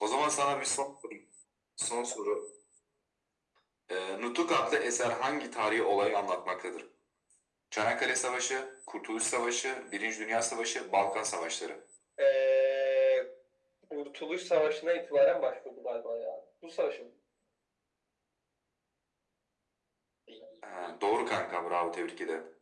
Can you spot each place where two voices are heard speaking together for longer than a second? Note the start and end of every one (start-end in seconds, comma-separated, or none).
none